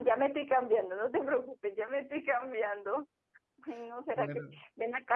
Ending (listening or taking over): listening